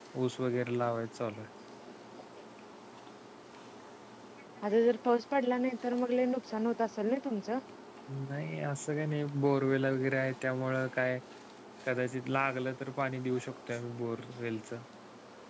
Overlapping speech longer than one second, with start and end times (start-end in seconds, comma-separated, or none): none